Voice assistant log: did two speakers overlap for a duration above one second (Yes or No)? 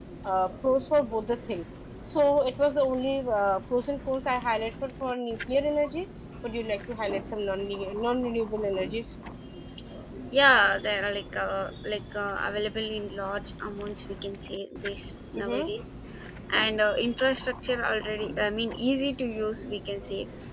No